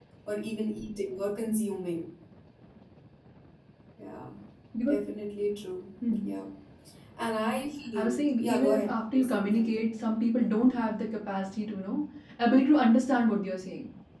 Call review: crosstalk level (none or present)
present